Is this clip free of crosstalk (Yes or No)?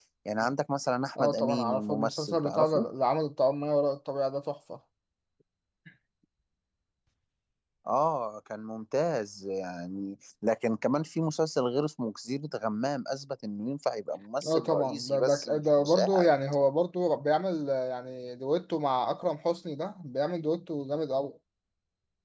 No